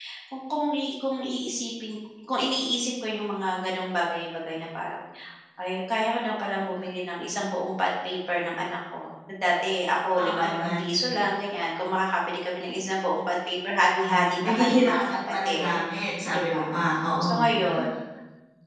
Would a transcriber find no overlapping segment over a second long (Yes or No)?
No